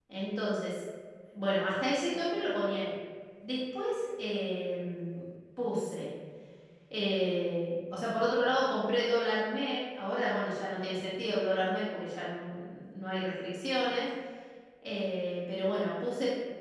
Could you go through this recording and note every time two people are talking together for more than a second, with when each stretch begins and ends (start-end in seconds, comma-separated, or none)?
none